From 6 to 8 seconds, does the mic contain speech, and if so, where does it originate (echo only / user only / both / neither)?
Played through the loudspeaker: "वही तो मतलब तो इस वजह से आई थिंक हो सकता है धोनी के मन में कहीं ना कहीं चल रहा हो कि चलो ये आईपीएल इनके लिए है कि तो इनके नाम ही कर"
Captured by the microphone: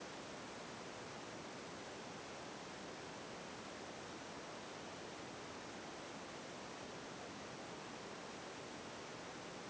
neither